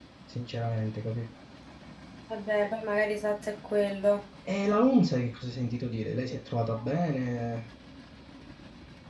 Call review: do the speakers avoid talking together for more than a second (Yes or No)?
Yes